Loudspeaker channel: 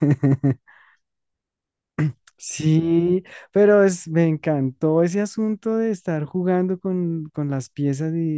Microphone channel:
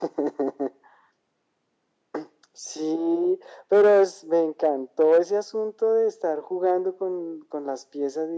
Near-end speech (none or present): none